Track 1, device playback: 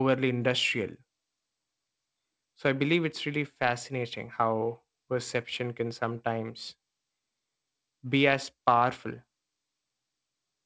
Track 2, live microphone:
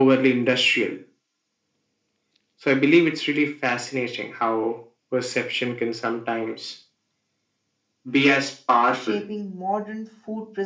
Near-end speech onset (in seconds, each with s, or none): 8.9 s